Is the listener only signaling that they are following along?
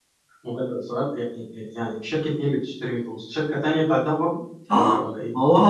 No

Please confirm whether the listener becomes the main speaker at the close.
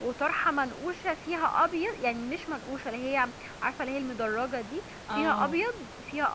No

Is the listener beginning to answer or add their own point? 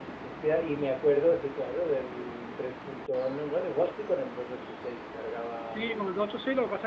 Yes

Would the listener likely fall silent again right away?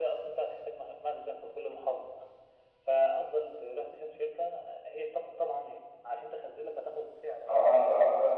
No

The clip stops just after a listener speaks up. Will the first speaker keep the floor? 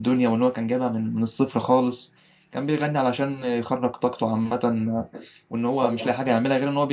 Yes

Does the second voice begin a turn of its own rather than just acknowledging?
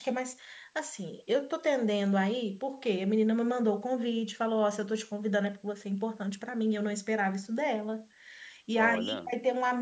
No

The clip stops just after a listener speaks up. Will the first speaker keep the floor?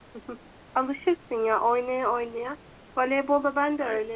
Yes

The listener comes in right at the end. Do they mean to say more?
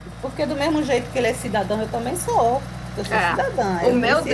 Yes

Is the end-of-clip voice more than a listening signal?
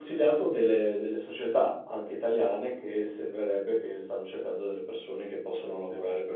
No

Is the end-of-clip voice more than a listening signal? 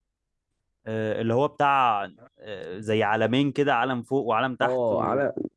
Yes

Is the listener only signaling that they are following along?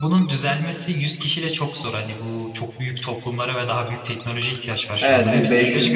No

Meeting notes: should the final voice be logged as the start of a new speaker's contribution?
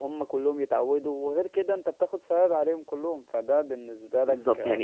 Yes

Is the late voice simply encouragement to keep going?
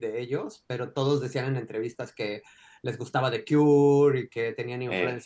Yes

